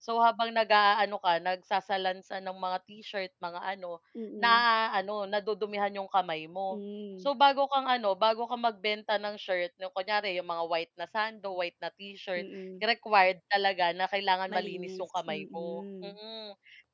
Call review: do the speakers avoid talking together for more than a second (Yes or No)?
No